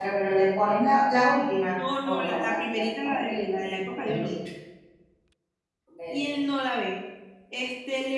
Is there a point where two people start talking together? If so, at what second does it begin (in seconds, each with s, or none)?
1.7 s